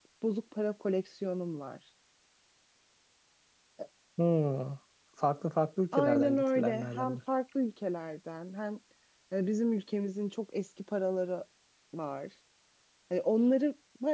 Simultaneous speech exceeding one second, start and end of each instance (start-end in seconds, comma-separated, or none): 5.9-7.2